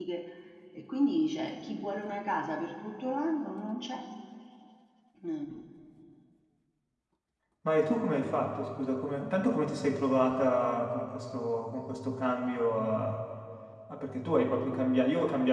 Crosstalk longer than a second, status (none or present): none